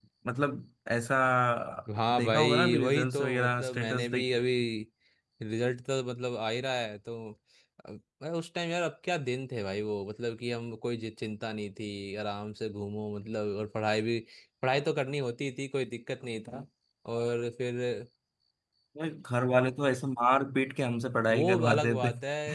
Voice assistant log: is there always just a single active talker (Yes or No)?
No